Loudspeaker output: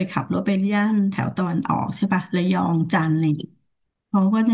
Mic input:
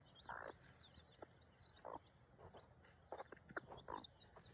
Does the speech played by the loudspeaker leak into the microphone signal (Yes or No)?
No